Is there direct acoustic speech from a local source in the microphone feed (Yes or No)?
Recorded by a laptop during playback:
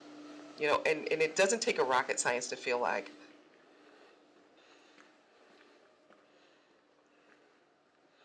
Yes